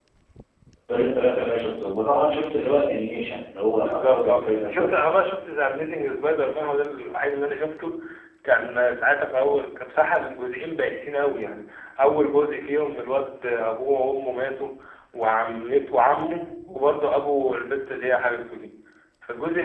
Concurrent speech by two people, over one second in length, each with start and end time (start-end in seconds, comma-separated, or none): 3.8-5.1